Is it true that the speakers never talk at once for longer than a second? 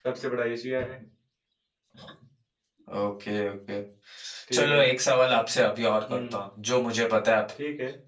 Yes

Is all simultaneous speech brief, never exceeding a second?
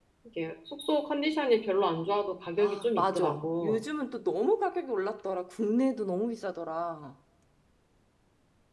No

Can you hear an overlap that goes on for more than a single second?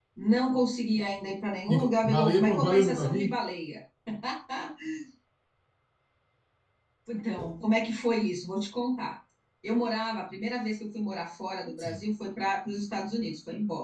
Yes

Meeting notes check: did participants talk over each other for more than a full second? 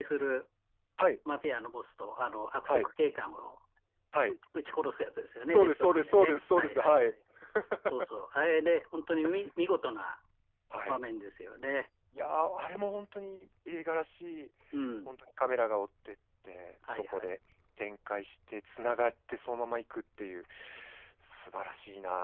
Yes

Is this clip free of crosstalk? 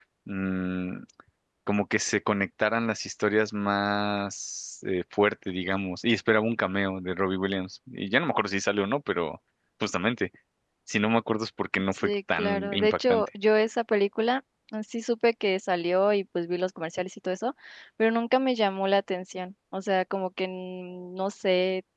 No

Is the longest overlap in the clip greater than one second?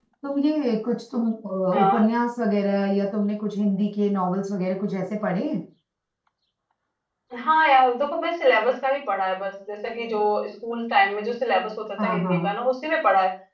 No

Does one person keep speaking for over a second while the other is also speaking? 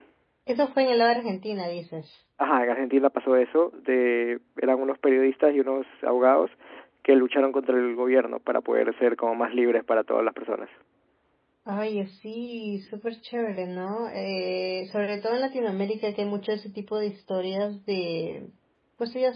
No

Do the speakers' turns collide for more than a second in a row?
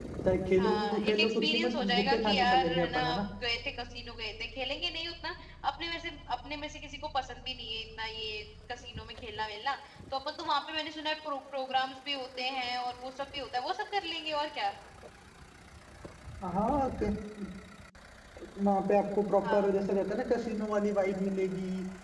Yes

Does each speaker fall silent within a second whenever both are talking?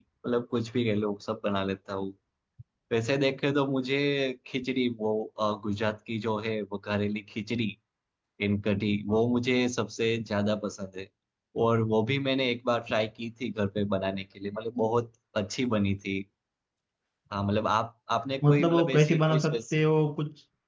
No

